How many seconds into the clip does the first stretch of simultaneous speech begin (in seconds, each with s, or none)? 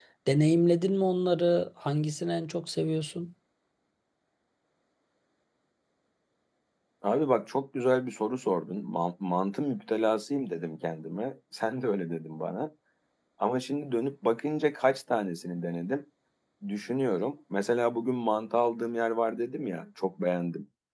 none